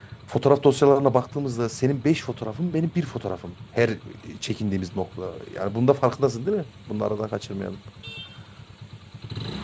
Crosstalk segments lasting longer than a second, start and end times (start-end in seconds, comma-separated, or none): none